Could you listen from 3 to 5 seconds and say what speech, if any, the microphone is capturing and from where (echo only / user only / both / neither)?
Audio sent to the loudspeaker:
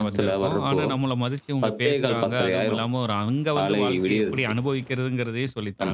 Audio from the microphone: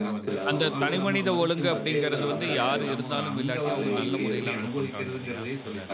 both